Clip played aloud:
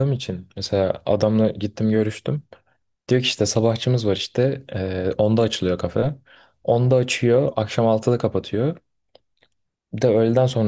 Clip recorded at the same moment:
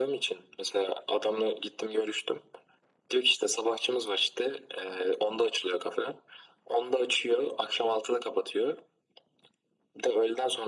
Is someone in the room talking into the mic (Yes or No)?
No